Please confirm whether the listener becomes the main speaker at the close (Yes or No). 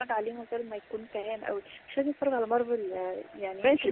Yes